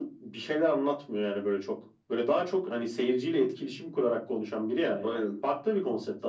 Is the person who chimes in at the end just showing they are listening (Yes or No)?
Yes